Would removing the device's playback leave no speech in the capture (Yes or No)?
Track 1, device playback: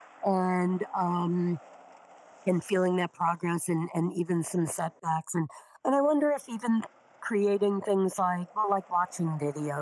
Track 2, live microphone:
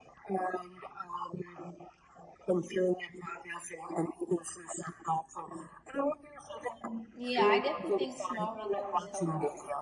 No